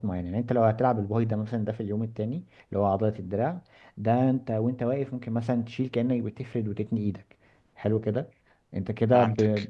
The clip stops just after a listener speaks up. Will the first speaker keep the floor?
Yes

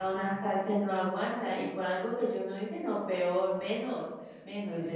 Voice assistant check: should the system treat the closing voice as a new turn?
Yes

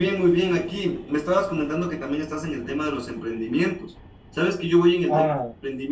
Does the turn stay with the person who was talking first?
Yes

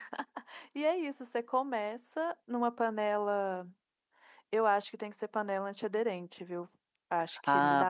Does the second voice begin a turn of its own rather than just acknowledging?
Yes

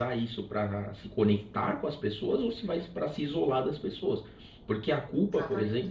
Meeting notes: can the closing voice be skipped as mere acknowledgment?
Yes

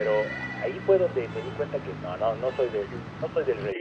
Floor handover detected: Yes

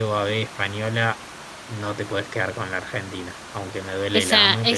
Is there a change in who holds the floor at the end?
Yes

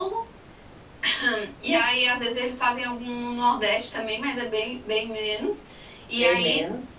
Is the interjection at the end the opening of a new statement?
No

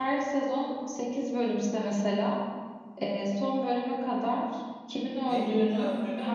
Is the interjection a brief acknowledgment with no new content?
No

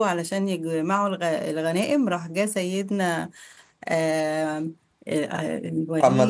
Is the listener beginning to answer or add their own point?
Yes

